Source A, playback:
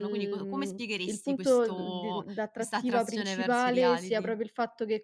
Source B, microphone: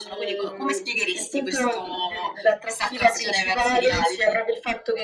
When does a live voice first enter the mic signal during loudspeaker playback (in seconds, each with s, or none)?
none